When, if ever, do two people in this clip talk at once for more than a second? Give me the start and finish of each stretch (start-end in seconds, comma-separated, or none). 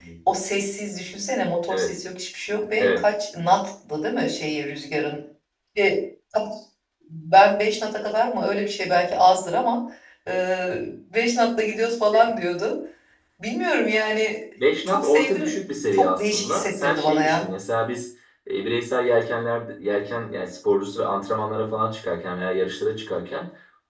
14.9-17.4